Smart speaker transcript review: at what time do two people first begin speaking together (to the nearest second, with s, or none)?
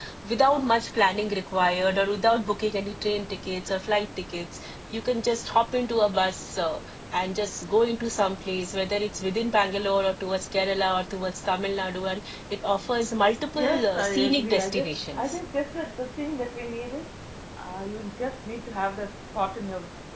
14 s